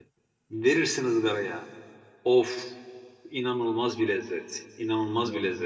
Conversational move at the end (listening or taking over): listening